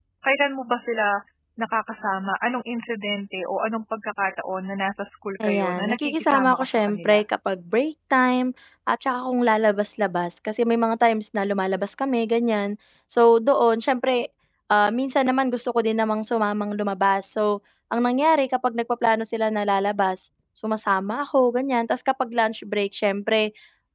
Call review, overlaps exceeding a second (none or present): present